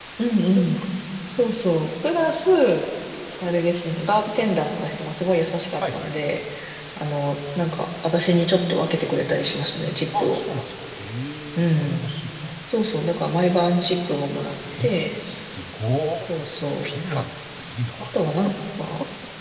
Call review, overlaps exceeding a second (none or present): none